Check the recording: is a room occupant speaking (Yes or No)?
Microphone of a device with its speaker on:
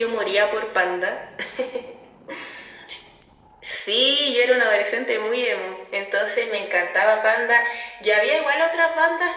No